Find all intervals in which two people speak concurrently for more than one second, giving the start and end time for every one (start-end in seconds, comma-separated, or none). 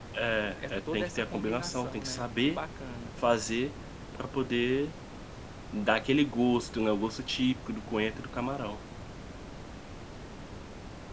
0.6-2.6